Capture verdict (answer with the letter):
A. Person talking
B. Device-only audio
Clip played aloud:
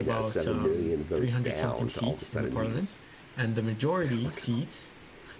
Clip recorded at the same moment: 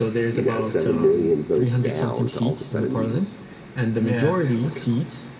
A